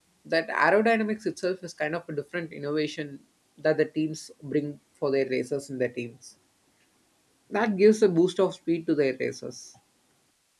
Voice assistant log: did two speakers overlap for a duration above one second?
No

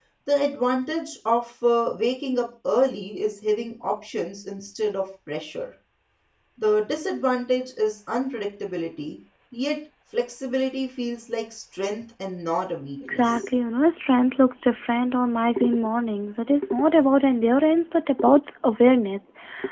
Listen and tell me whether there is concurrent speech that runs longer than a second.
No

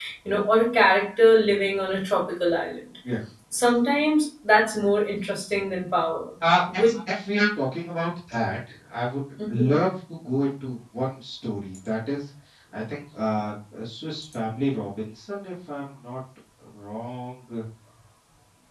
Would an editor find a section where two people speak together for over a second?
No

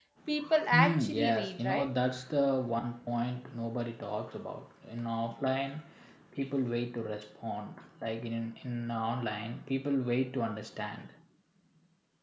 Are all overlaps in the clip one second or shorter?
No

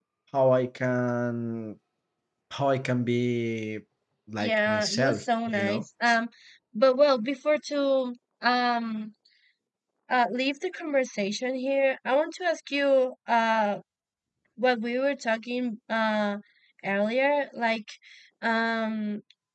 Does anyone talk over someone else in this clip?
Yes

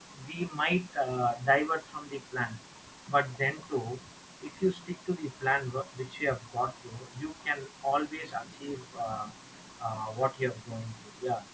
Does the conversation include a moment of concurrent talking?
No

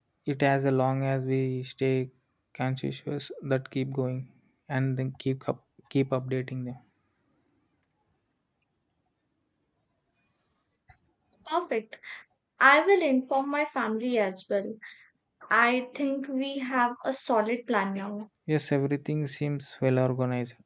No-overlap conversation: Yes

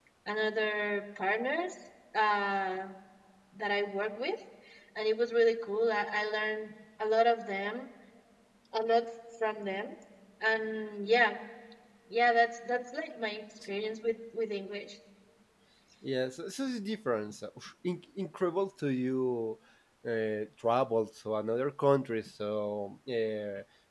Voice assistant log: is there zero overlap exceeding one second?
Yes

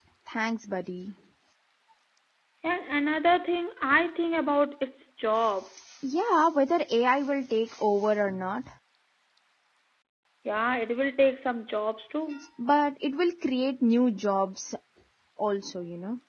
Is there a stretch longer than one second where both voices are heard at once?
No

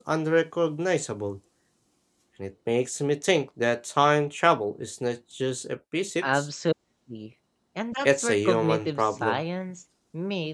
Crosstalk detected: Yes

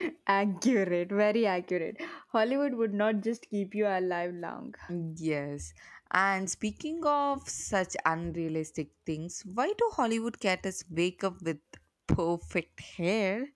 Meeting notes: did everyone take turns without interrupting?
Yes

